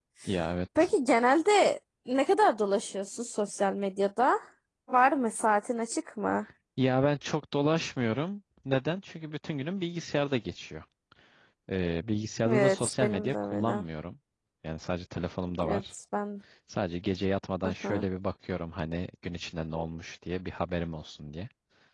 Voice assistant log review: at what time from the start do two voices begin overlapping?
12.5 s

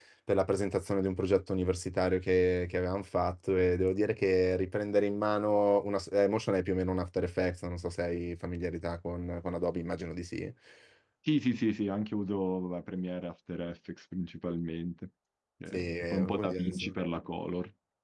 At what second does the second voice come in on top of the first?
15.7 s

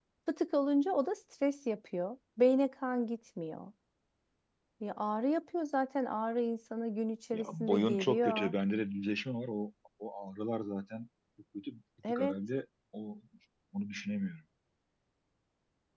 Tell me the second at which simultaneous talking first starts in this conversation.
7.3 s

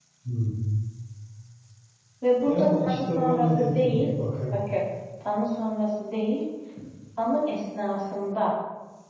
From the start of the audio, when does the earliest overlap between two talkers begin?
2.4 s

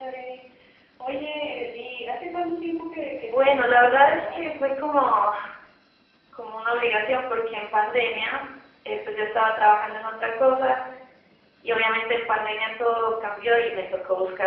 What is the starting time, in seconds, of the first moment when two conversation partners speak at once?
3.2 s

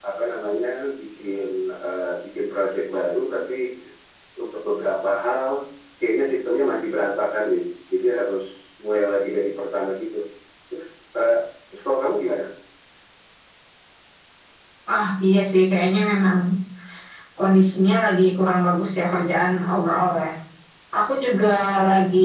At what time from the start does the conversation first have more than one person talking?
none

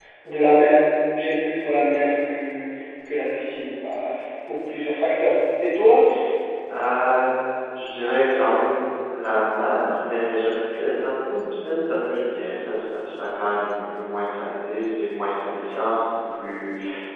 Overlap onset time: none

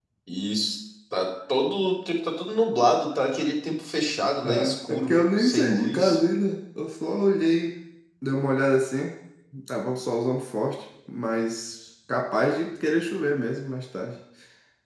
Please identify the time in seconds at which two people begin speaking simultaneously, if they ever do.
4.4 s

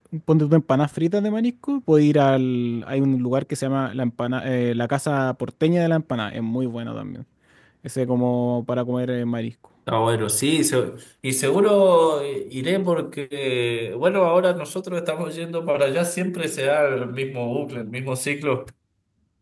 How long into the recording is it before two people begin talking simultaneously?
none

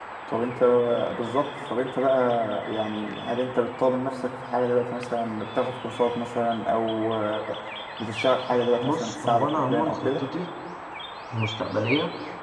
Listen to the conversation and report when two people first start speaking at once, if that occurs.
8.8 s

